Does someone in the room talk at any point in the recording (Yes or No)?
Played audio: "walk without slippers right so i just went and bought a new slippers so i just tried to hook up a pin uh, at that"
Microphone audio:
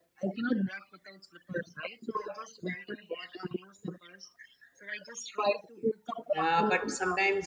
Yes